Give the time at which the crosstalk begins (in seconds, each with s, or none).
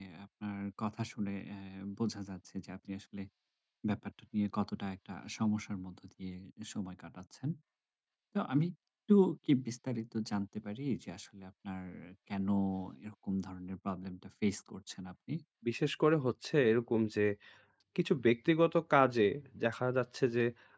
none